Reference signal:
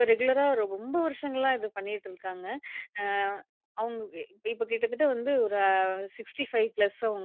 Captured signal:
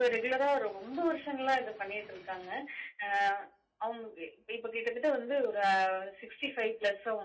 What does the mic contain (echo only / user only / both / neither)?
echo only